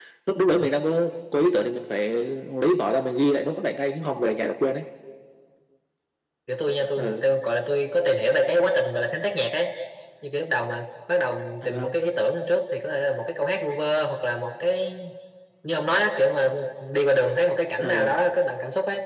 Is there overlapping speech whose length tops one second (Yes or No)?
No